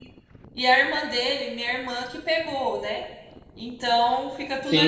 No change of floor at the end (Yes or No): Yes